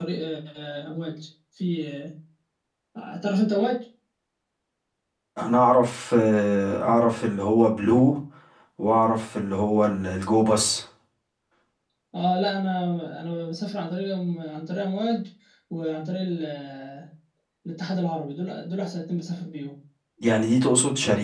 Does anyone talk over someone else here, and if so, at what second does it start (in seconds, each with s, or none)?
none